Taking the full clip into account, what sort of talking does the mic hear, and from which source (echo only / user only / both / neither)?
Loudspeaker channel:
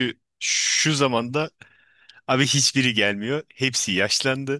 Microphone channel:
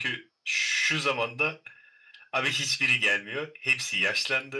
echo only